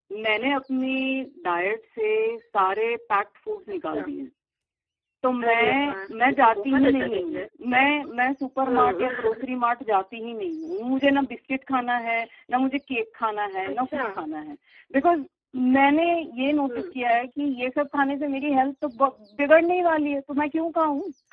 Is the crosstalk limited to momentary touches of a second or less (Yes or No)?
No